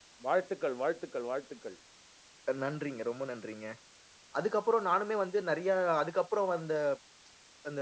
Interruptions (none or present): none